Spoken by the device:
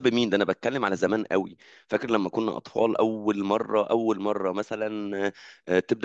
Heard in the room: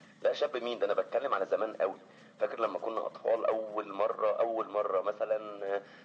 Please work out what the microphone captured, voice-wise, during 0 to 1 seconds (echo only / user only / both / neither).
echo only